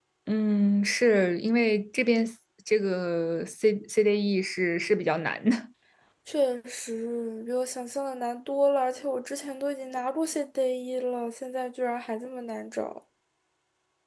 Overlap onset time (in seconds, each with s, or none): none